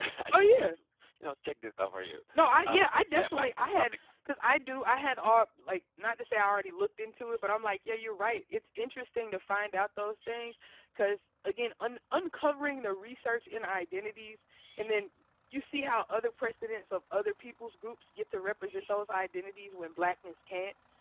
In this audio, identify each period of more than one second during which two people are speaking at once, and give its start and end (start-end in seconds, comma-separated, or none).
2.6-3.9